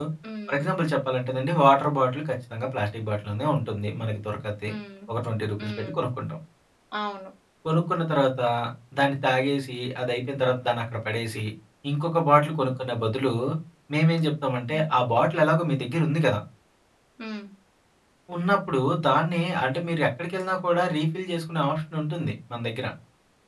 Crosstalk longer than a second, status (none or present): none